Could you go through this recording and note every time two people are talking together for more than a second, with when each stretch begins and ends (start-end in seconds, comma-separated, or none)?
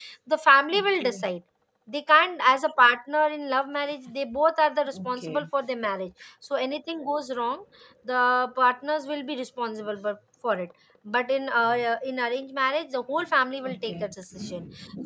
none